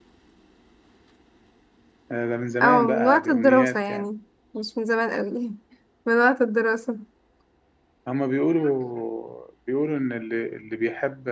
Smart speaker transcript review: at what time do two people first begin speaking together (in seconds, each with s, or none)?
2.6 s